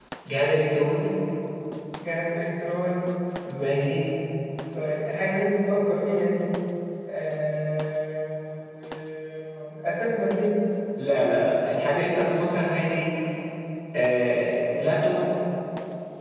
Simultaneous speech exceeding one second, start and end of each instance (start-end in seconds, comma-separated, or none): none